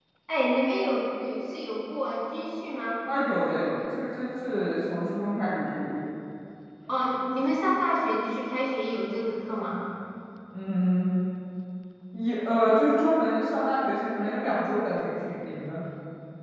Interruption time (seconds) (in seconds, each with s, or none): none